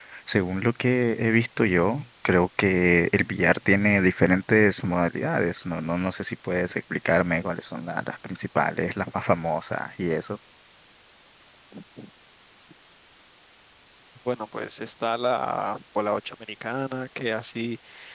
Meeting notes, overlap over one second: none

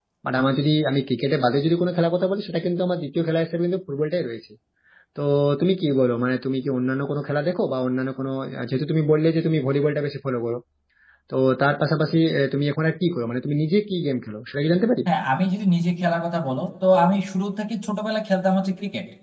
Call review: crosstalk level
none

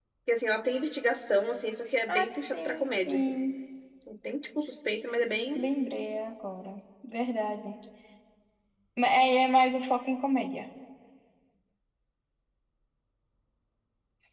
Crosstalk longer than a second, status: present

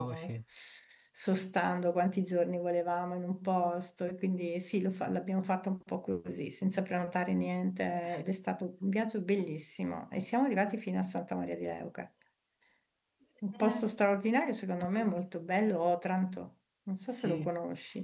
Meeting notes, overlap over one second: none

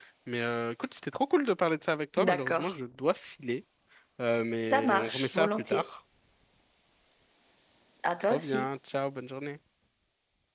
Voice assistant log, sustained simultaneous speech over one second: present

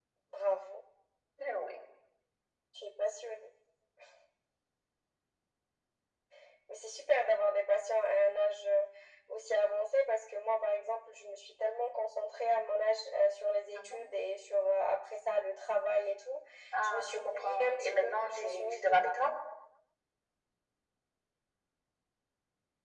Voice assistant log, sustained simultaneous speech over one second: present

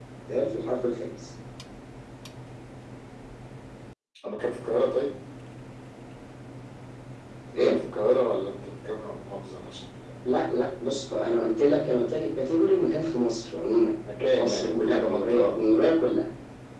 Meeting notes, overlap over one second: present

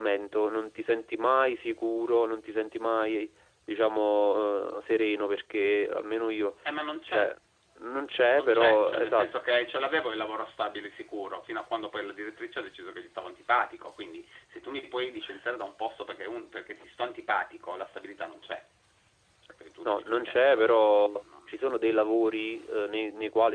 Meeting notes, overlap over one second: present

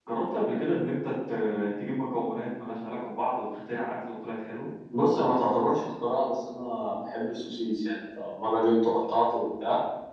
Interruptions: none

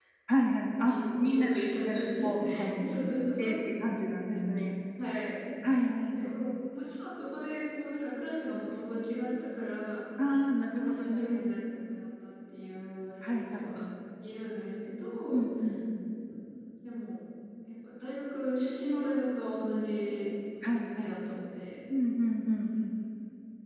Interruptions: present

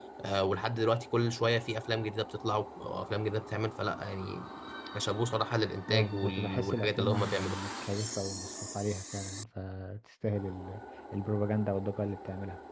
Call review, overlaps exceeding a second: present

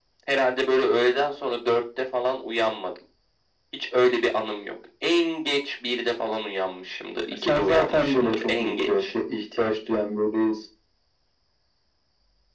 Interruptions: present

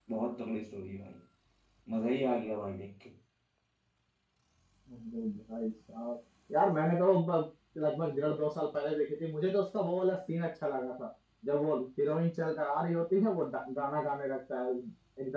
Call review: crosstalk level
none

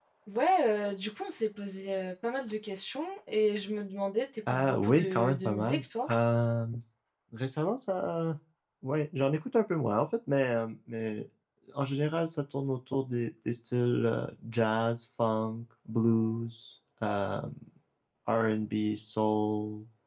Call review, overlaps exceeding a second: present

